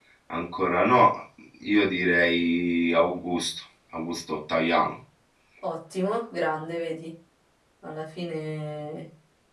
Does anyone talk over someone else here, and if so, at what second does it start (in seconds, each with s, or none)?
none